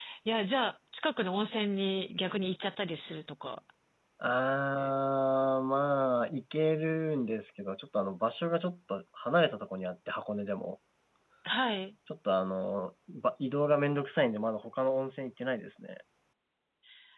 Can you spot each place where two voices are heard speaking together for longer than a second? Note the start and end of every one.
none

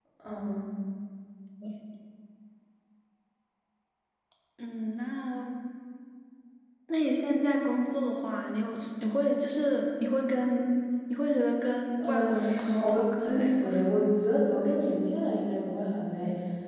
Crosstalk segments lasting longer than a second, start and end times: 12.0-13.7

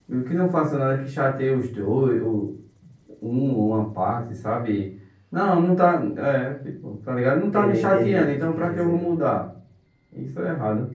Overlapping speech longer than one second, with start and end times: 7.4-9.1

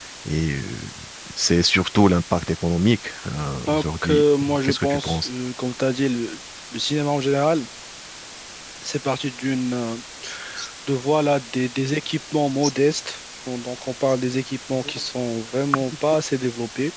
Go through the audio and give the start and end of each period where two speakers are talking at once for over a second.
3.7-5.3

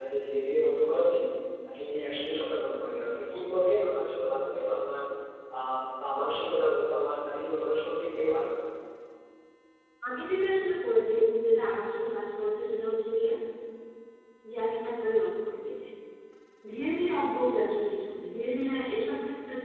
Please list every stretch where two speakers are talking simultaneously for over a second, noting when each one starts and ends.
none

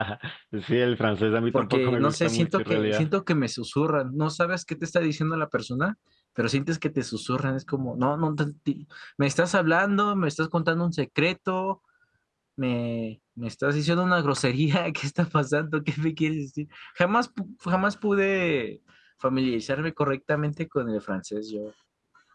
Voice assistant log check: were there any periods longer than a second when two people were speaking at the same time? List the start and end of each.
1.5-3.1

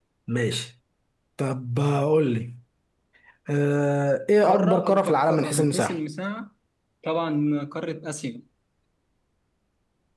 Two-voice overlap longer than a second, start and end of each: 4.4-6.0

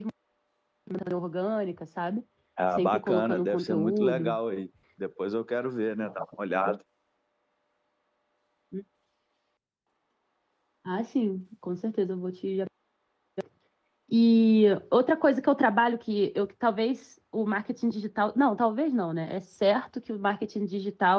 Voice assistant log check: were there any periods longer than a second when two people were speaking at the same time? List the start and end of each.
2.8-4.3

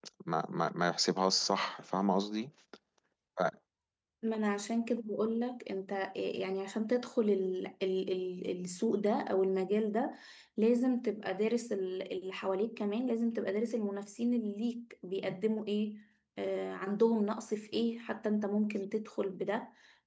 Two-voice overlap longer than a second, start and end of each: none

